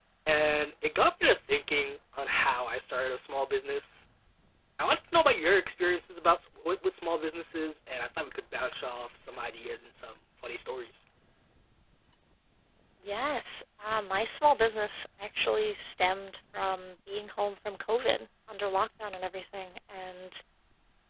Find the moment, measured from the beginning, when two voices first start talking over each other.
none

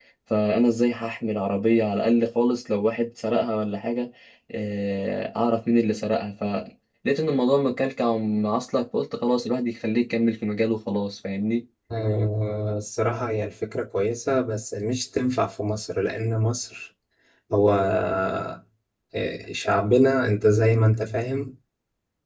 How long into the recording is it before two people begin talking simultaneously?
none

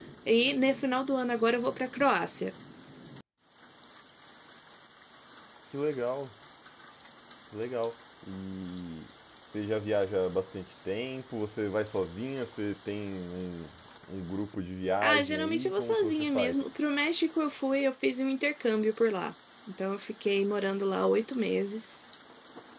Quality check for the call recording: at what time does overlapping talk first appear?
15.0 s

